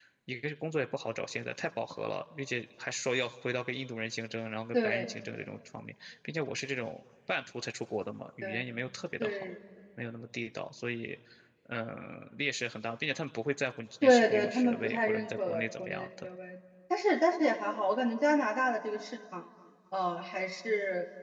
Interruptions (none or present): present